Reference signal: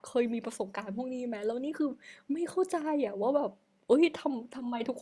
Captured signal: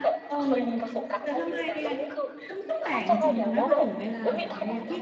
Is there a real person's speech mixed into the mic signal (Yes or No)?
Yes